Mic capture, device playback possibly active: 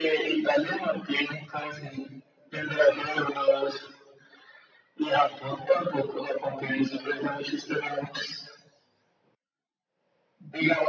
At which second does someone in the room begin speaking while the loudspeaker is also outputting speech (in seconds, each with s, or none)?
none